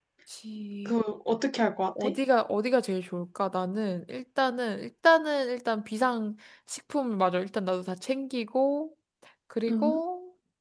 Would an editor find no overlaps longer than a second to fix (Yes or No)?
Yes